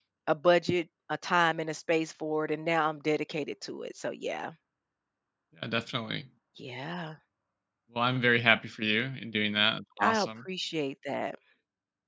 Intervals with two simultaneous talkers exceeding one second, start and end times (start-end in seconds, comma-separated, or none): none